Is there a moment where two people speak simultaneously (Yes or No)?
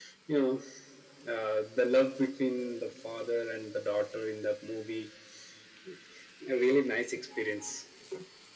No